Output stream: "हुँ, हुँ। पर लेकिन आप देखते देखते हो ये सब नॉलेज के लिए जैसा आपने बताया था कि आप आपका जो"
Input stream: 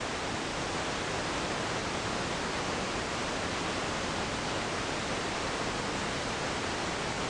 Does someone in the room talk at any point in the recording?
No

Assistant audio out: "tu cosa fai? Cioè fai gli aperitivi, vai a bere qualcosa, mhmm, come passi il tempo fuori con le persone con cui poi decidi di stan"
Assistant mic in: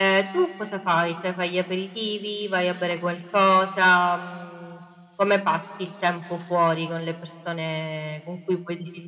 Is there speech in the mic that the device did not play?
No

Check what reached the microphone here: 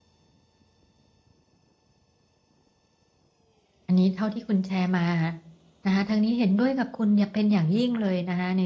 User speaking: Yes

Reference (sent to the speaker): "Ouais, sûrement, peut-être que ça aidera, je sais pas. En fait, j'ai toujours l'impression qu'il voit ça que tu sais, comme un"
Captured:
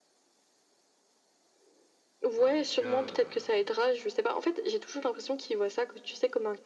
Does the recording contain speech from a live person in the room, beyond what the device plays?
Yes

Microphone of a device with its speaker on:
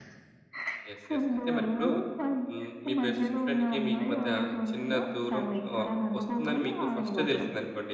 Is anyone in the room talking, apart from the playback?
Yes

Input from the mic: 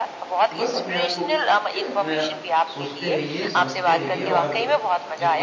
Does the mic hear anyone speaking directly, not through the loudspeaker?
Yes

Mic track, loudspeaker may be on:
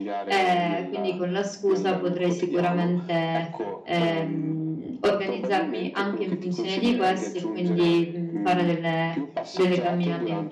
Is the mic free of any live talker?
No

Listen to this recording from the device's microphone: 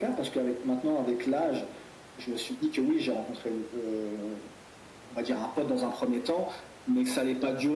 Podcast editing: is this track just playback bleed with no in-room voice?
Yes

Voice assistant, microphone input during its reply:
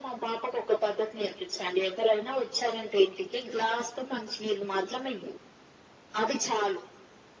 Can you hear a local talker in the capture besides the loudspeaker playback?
No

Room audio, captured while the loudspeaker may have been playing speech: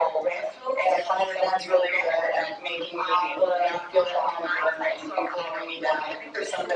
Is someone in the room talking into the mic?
No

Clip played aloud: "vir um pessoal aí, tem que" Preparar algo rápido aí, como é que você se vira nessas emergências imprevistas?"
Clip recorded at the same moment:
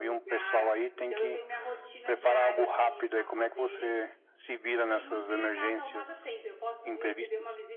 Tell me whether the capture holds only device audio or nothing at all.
No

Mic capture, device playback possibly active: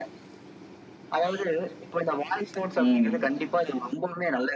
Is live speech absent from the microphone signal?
No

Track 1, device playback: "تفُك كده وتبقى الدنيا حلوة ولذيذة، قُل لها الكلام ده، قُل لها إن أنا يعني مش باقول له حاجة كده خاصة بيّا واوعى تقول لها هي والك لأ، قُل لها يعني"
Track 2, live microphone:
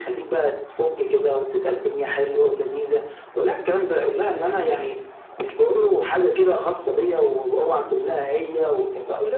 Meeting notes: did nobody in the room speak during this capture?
Yes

